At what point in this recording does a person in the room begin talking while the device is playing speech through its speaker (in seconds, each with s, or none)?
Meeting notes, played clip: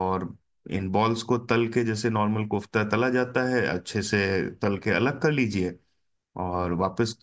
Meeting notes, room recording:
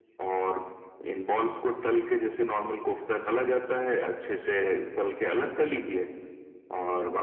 none